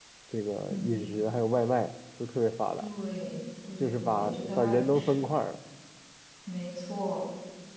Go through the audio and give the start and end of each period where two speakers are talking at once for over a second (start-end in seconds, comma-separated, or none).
3.8-5.1